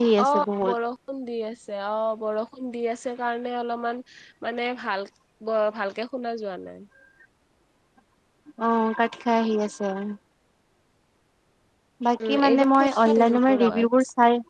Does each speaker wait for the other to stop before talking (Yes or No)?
No